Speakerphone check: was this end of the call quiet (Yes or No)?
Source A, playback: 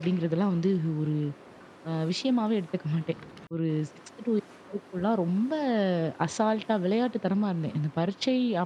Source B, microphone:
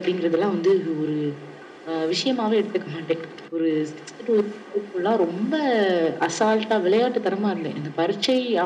Yes